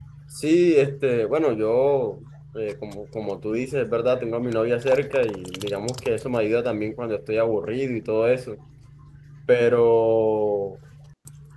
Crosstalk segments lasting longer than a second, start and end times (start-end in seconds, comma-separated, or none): none